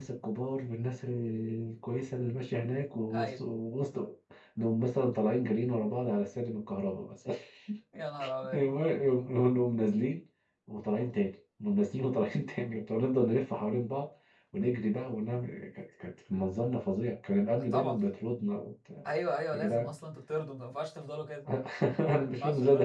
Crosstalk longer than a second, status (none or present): none